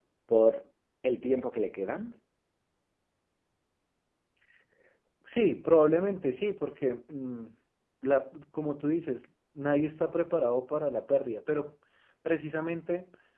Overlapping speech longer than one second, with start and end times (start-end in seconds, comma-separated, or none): none